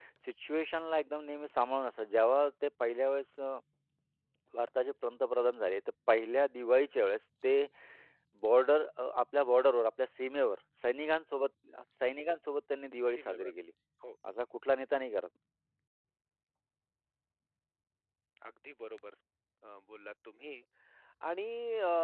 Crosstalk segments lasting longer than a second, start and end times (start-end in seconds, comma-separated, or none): none